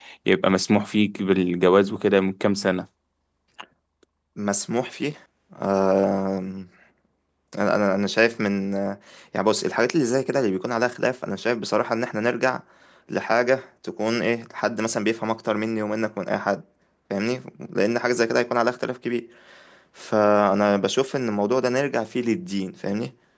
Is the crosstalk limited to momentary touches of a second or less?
Yes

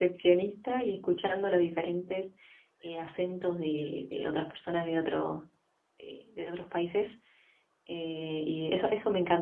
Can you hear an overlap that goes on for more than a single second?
No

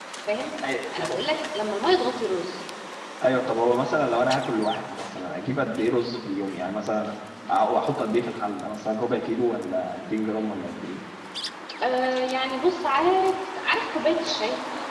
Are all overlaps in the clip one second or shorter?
Yes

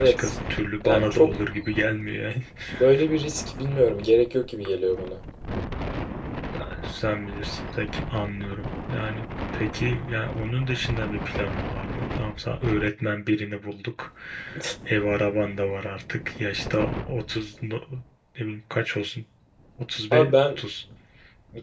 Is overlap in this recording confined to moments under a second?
Yes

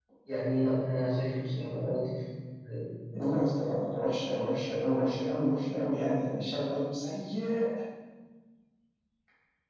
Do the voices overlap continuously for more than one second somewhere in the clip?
No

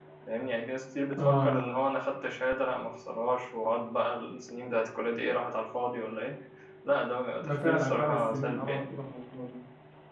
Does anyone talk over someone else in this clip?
Yes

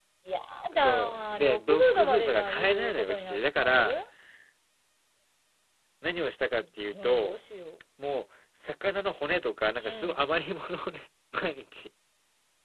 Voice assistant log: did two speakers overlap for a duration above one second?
Yes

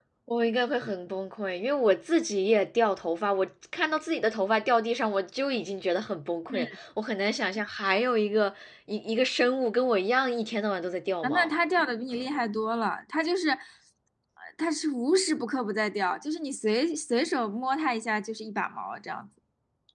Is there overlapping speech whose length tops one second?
No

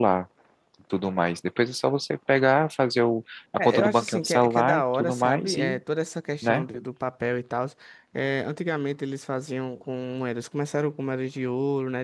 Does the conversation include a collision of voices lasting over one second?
Yes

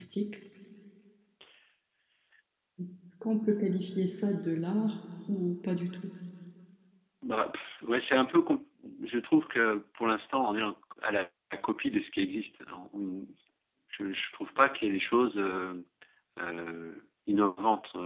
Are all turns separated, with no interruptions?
Yes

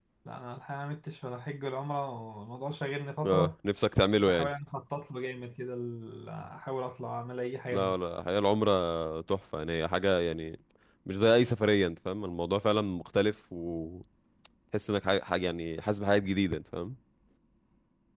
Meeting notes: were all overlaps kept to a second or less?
Yes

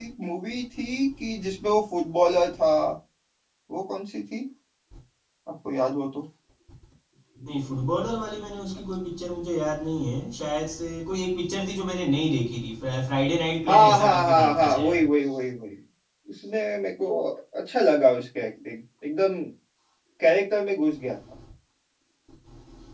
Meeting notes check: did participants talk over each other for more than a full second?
Yes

